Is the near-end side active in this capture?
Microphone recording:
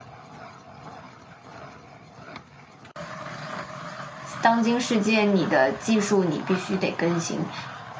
Yes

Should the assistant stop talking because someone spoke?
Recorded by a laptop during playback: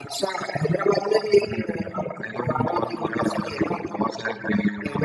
No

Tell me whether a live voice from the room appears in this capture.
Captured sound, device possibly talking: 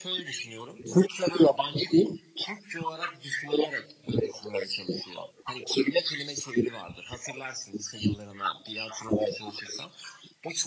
No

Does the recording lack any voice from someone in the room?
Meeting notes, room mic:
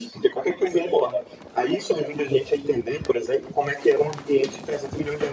Yes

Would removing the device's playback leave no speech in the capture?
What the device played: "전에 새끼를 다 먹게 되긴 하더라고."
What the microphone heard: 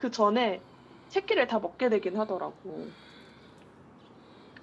Yes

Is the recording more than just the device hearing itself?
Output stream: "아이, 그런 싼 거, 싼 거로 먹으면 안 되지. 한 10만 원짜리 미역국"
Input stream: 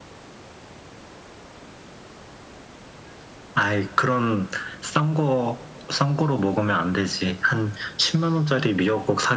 No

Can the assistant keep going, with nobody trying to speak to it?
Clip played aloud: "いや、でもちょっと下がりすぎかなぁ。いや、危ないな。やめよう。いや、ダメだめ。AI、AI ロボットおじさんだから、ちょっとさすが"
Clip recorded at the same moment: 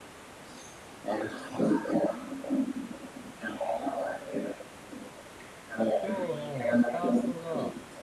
No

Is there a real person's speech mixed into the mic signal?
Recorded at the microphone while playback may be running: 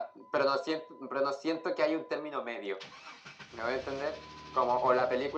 No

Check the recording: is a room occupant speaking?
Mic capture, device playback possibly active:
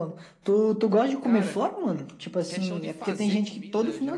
Yes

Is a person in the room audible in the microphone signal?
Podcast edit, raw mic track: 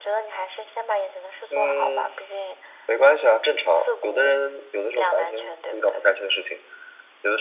No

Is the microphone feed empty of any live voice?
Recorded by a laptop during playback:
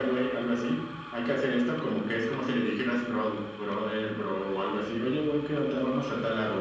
Yes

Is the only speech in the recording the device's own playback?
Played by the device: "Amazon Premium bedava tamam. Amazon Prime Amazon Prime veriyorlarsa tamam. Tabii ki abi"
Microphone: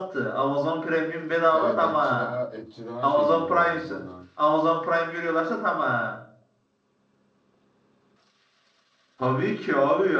No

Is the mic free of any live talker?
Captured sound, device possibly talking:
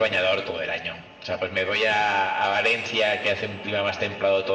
Yes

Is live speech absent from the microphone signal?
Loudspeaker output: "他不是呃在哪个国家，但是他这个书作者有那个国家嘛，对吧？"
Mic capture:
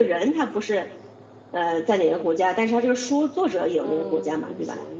No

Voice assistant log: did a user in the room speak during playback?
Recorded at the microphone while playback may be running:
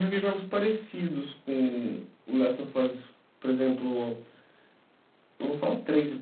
No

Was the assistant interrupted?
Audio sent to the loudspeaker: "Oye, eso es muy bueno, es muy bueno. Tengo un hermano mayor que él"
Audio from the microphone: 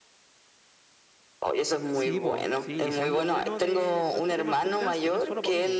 Yes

